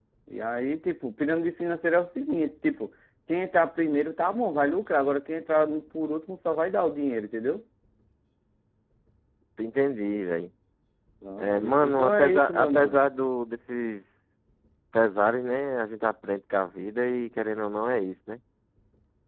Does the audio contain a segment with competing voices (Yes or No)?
Yes